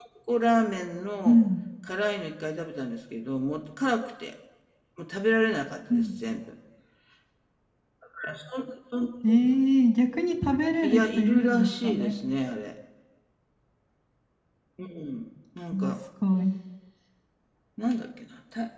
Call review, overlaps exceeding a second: present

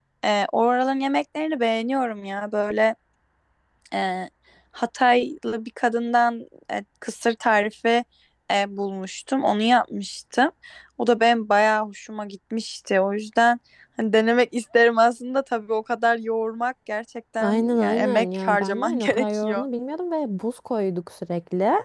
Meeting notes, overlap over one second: present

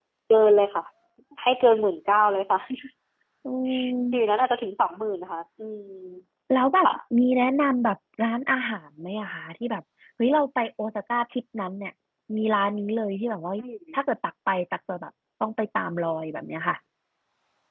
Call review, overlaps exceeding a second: none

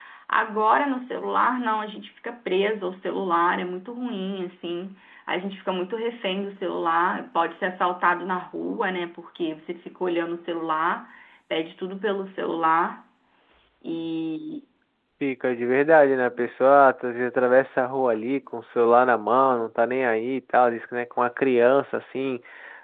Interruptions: none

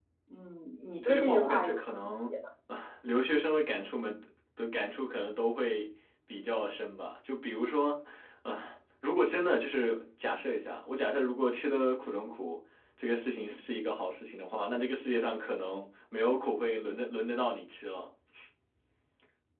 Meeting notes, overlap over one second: present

